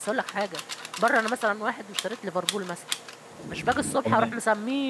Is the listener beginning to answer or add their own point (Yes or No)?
No